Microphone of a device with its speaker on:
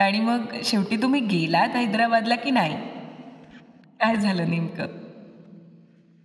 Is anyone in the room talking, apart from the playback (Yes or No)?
Yes